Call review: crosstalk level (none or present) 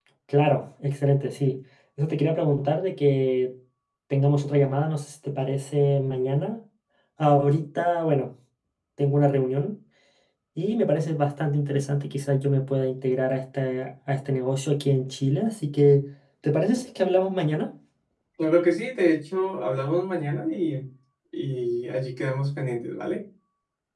none